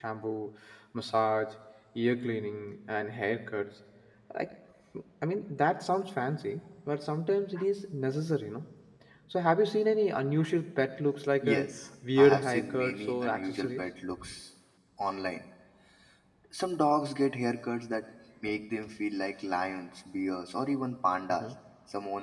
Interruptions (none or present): present